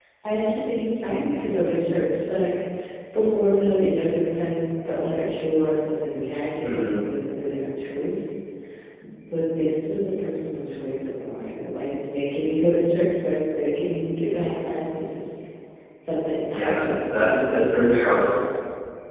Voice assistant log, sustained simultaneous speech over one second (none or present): present